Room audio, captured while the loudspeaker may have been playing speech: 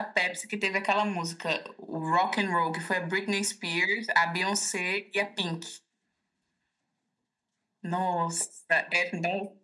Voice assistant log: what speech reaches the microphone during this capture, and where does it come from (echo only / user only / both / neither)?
echo only